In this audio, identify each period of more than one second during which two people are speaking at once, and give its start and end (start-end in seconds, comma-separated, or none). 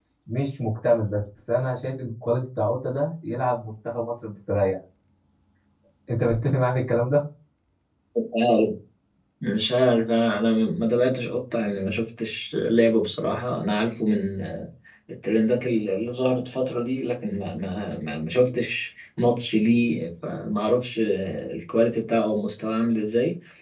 none